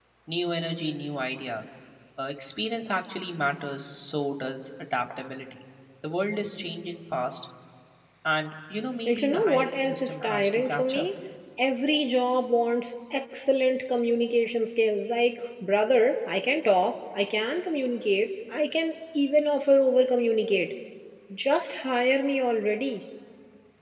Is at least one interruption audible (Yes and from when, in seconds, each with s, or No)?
Yes, from 9.1 s